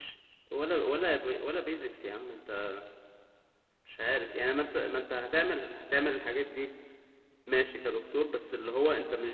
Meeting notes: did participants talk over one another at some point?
No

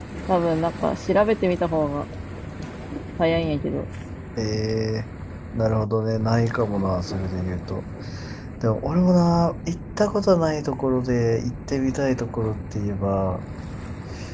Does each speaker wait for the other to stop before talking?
Yes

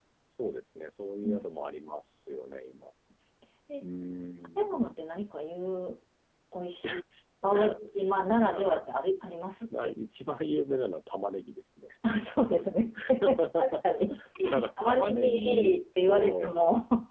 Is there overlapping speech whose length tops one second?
Yes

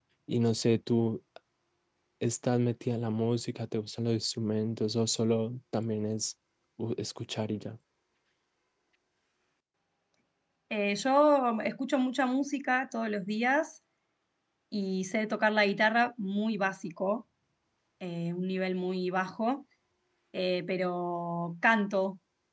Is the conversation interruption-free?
Yes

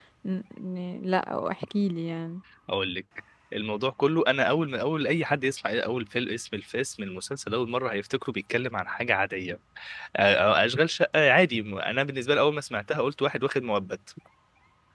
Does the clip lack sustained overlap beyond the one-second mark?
Yes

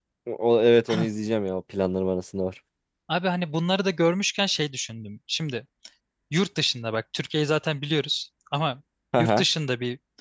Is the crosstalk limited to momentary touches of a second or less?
Yes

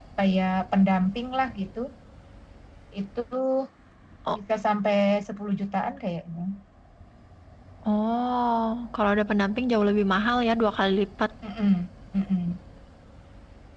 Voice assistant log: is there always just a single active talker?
Yes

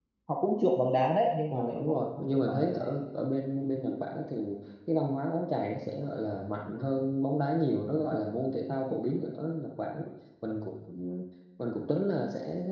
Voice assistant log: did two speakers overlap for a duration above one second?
Yes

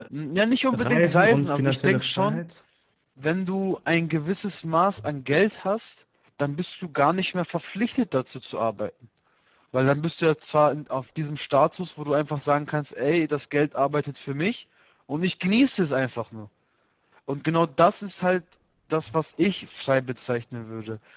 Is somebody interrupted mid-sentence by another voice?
Yes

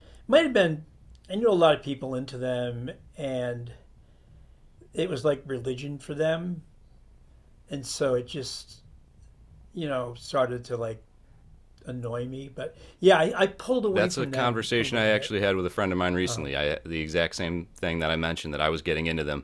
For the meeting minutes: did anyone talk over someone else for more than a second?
Yes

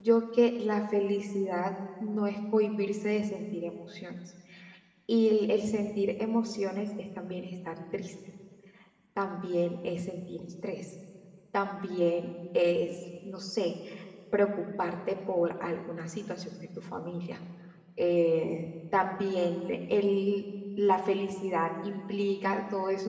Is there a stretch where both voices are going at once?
No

